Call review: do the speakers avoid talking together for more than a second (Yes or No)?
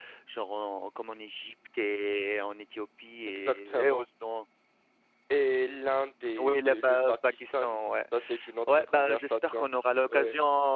No